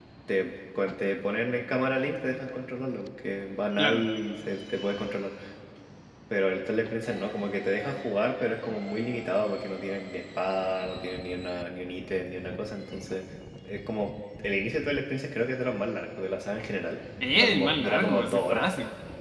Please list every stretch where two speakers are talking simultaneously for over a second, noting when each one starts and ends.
17.3-18.7

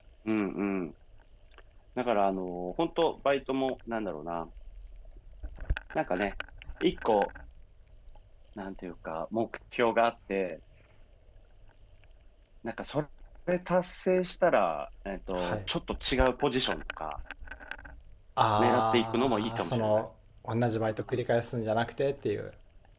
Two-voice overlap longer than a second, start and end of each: 18.6-20.0

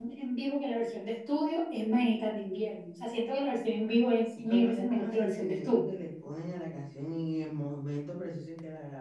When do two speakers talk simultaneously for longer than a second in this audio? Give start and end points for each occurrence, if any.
4.5-5.8

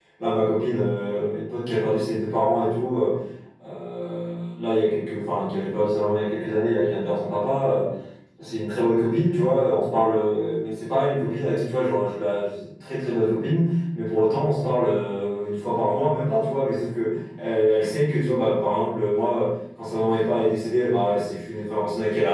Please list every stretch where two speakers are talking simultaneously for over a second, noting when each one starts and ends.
none

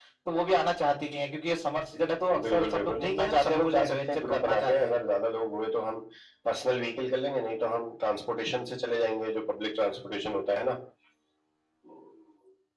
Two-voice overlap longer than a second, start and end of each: 2.5-5.0

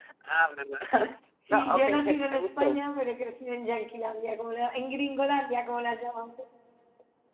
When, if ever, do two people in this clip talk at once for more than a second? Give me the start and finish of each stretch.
1.5-2.8

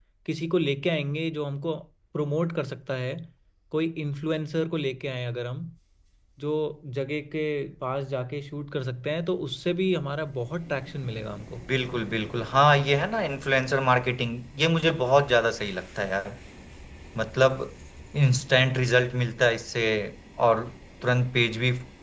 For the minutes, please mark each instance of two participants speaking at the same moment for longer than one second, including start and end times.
none

